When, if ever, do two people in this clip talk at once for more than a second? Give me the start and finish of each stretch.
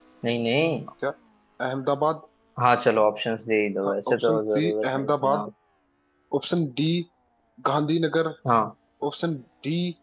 3.9-5.5

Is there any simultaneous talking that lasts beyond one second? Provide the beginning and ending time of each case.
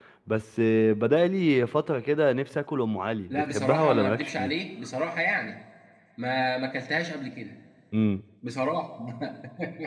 3.3-4.5

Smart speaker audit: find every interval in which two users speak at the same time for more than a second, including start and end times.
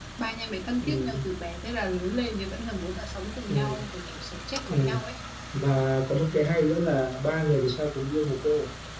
none

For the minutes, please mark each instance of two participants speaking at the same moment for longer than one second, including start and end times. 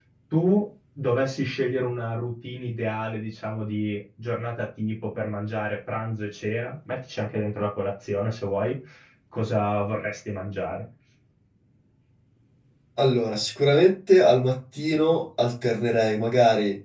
none

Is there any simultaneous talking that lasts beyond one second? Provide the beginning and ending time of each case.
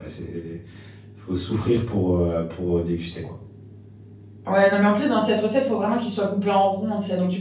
none

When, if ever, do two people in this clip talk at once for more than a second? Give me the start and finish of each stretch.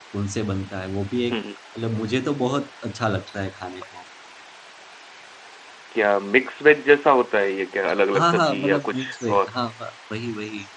8.1-9.5

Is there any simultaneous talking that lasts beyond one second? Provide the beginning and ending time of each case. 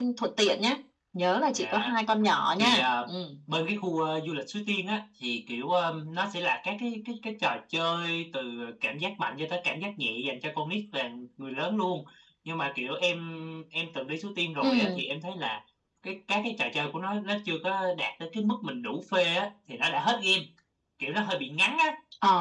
none

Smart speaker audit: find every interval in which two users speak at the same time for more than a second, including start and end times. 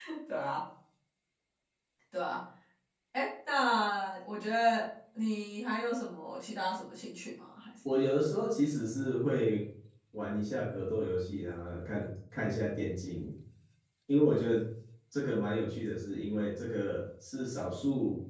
none

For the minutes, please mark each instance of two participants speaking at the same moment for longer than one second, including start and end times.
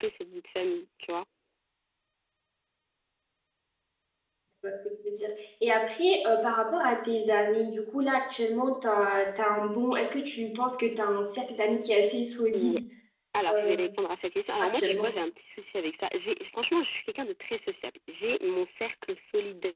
none

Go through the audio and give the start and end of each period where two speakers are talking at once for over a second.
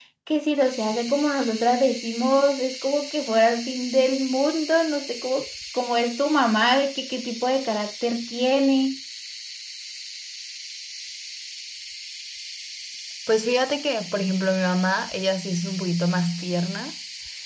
none

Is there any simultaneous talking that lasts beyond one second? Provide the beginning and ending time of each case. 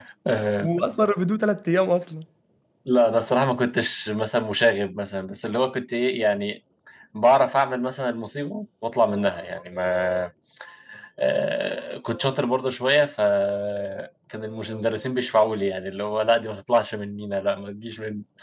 none

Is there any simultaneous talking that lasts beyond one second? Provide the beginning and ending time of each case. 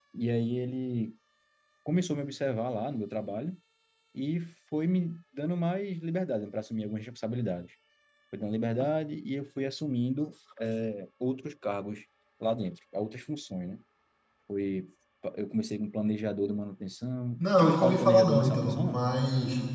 17.4-19.0

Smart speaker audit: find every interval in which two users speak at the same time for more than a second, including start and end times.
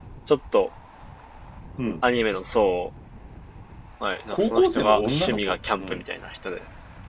4.3-6.0

